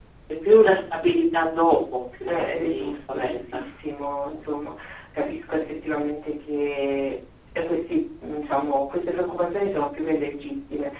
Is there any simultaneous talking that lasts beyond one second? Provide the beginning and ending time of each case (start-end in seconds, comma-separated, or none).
2.2-3.6